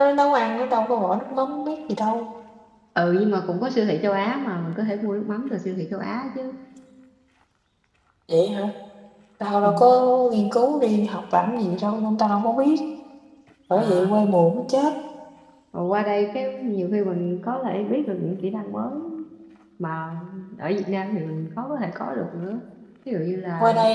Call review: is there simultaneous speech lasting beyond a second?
No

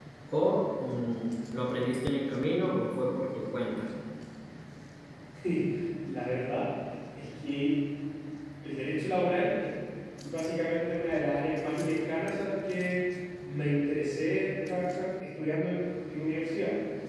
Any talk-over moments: No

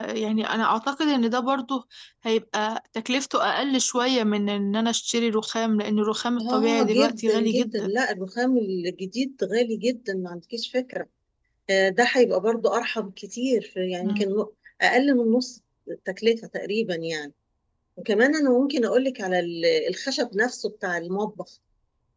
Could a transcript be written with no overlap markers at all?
No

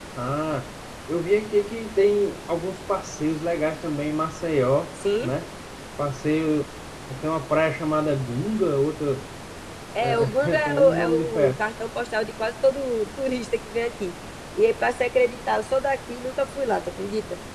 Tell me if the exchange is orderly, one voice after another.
No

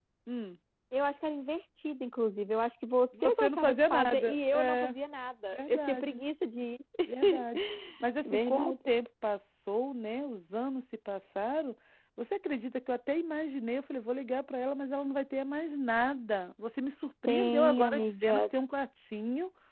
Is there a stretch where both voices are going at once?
Yes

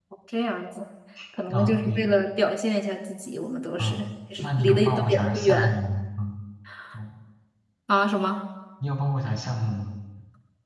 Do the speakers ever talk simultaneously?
Yes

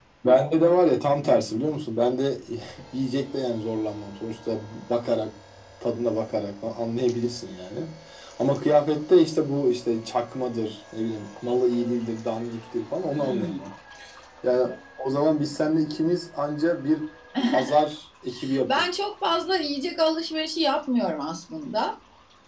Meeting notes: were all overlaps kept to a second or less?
Yes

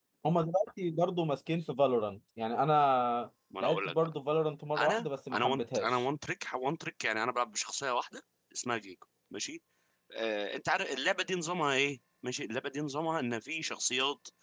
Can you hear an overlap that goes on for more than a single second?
Yes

